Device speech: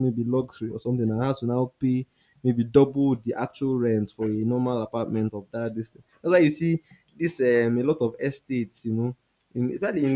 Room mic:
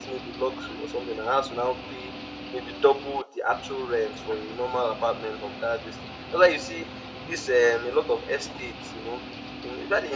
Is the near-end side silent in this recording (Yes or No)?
Yes